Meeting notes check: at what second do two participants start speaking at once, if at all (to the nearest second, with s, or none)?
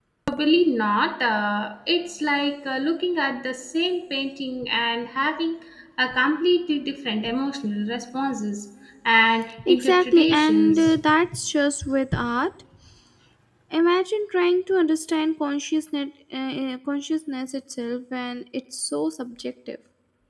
10 s